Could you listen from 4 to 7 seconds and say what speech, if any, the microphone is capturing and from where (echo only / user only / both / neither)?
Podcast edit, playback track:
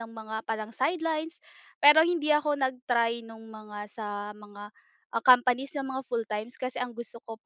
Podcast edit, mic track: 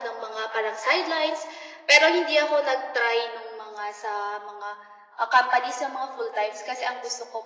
echo only